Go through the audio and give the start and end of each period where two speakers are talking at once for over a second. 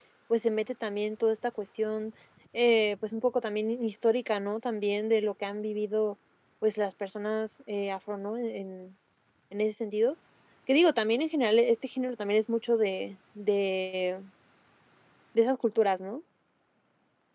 none

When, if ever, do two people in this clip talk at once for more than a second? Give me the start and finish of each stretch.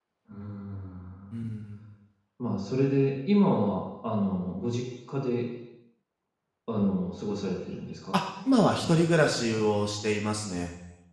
none

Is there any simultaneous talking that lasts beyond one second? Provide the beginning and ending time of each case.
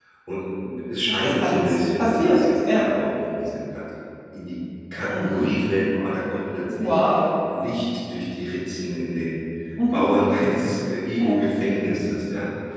1.1-2.9

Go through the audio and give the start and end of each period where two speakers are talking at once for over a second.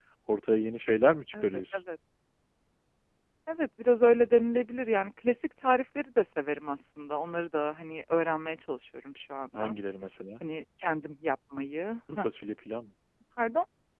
none

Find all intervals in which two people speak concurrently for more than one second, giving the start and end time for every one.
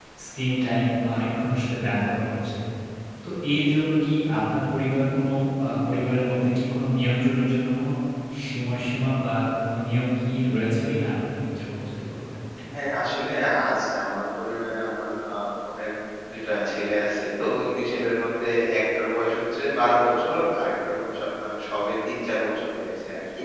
none

